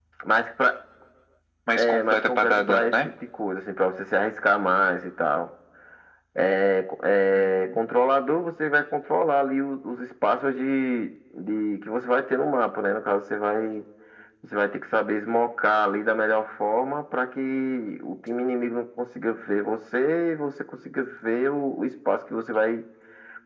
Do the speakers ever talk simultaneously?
Yes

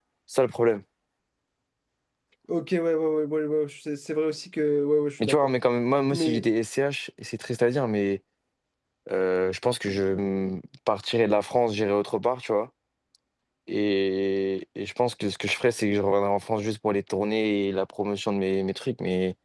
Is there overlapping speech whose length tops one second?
No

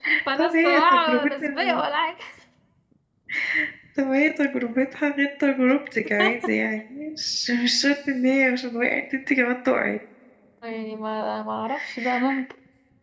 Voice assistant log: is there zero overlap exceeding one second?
No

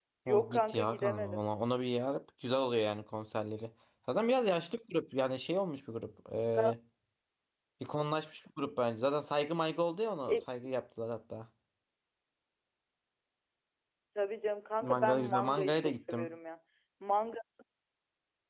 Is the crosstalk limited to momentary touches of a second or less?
No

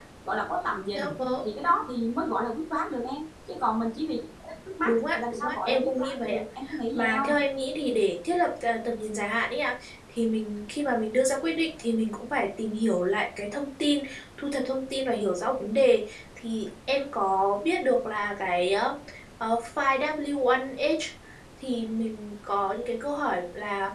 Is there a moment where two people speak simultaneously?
Yes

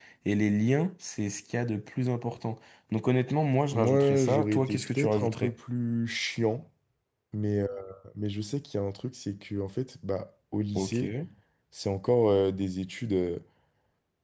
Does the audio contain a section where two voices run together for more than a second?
Yes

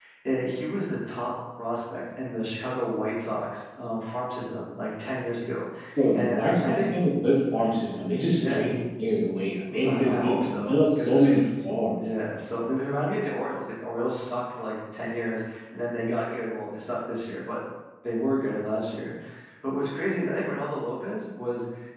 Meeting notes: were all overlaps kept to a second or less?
No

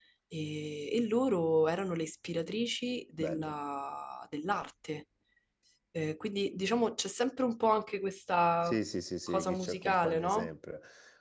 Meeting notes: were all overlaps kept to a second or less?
No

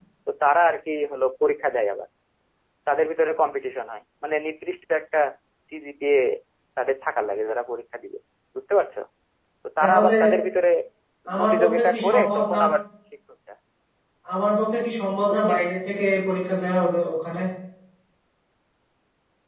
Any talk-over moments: Yes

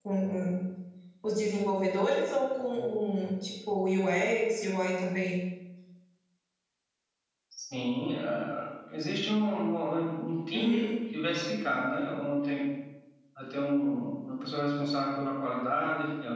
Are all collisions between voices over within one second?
Yes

